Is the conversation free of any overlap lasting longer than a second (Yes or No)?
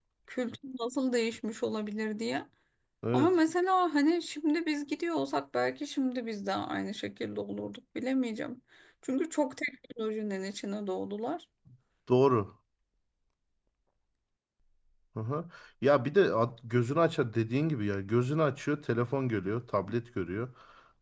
Yes